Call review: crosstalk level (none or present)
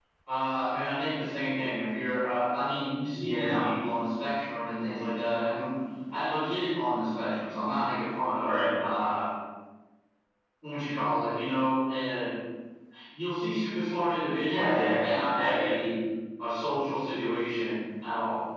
present